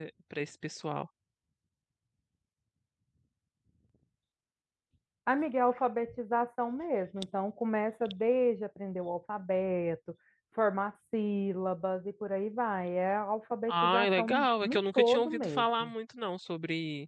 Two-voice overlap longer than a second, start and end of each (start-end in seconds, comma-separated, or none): 13.7-15.9